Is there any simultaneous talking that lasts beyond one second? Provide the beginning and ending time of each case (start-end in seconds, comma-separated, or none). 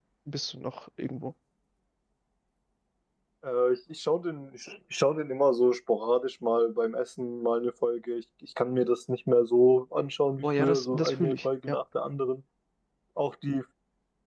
10.4-11.8